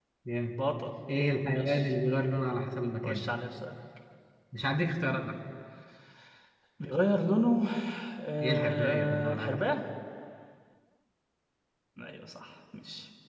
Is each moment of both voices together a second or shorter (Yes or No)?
No